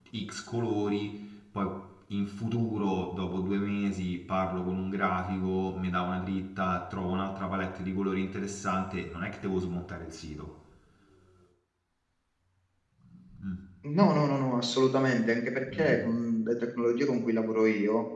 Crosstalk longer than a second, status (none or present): none